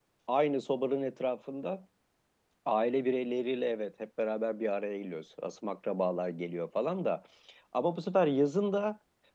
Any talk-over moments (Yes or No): No